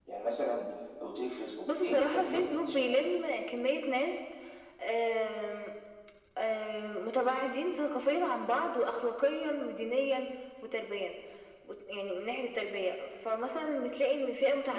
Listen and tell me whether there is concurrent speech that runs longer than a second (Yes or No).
Yes